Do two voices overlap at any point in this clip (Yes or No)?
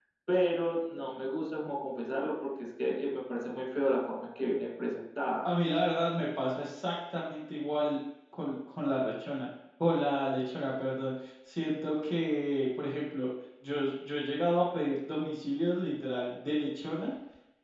No